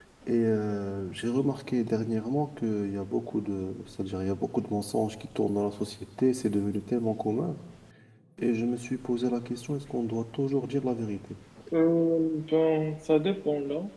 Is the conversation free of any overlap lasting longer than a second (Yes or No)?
Yes